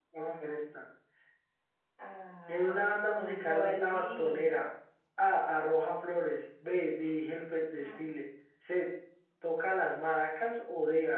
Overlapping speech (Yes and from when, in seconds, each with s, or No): Yes, from 2.5 s